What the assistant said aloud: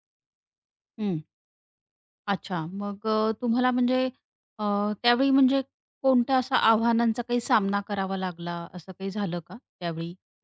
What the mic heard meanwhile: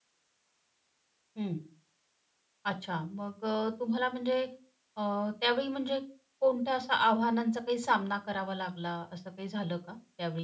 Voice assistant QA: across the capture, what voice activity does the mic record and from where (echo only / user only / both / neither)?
echo only